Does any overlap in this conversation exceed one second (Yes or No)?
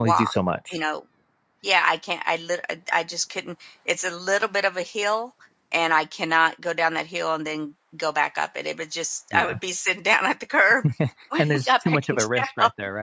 Yes